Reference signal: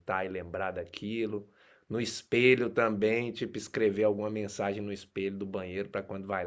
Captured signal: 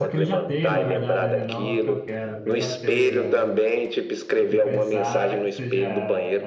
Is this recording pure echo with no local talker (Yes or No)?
No